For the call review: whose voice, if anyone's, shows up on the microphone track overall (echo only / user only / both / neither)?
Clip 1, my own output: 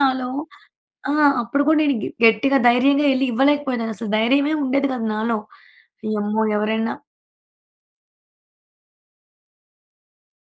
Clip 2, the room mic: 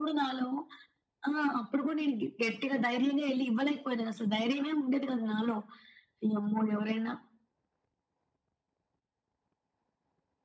echo only